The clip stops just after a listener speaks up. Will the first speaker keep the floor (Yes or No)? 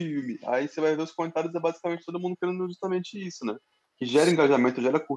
Yes